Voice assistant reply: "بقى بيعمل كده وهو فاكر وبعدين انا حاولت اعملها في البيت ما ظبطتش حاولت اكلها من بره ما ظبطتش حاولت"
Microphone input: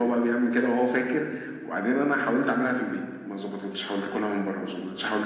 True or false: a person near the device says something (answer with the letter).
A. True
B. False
B